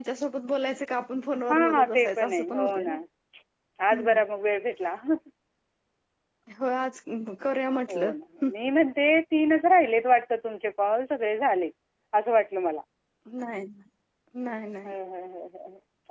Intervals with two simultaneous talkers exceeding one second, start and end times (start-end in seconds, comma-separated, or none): 1.5-2.9